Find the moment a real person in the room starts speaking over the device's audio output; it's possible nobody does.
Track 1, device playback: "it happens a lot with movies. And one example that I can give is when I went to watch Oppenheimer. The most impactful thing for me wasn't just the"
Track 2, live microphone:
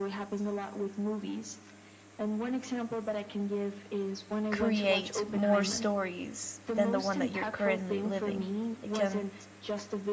4.5 s

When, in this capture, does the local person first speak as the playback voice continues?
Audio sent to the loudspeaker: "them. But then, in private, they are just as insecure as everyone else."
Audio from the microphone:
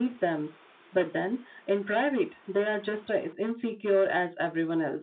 none

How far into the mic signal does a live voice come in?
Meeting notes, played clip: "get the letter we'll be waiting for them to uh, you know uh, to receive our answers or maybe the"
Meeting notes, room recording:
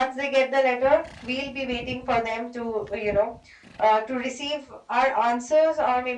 none

